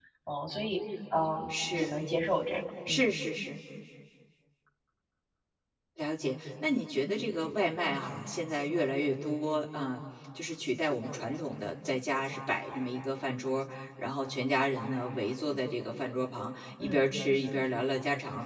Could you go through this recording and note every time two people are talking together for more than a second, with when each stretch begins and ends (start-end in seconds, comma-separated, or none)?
none